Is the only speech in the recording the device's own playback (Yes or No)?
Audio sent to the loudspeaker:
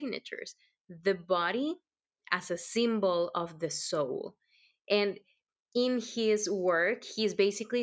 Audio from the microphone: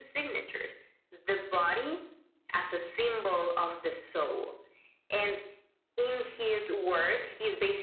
Yes